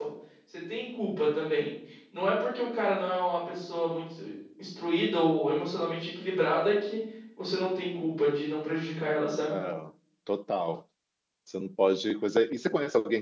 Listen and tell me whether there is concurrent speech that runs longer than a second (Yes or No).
No